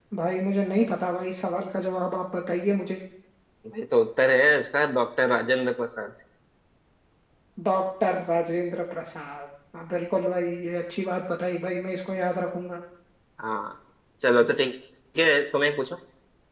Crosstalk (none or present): none